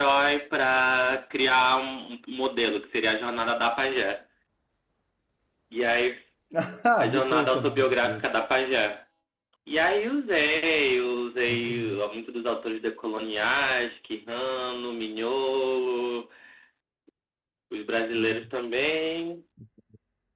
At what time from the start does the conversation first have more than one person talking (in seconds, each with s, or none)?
7.0 s